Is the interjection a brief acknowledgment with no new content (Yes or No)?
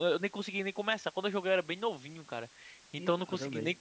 Yes